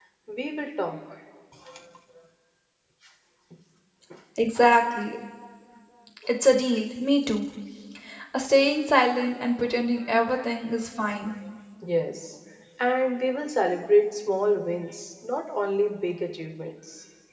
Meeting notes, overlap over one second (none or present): none